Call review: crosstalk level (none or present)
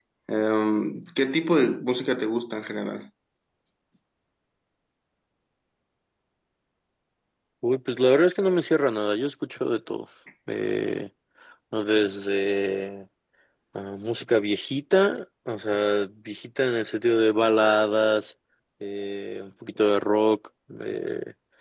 none